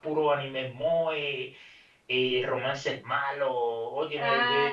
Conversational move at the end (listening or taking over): listening